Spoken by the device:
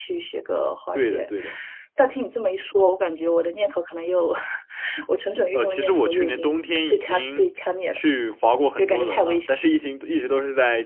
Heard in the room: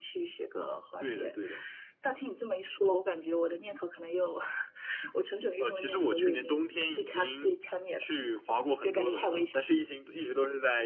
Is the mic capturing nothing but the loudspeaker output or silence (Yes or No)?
Yes